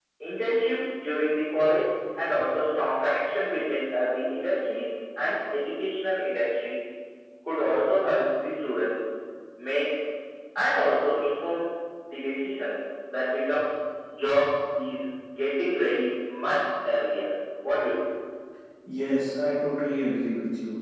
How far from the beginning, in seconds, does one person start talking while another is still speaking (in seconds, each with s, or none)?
none